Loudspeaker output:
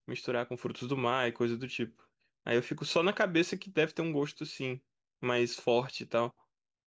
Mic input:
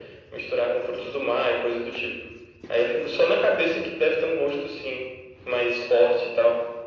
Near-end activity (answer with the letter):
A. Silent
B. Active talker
A